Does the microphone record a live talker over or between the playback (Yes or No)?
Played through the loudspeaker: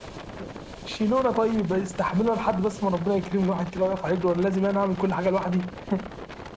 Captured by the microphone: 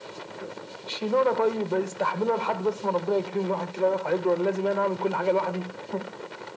No